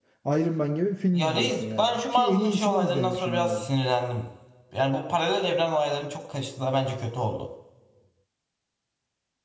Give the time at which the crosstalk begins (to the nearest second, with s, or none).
1 s